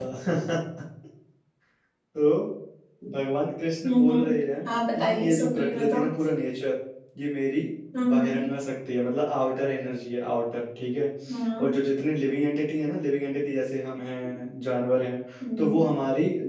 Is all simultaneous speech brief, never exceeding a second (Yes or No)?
No